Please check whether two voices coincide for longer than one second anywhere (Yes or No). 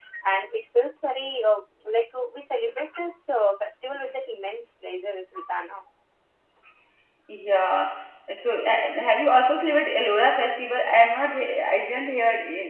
No